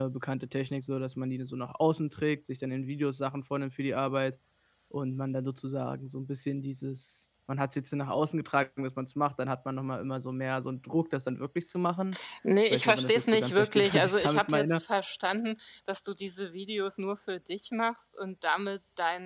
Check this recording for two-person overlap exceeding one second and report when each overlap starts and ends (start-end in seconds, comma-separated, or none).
12.7-14.8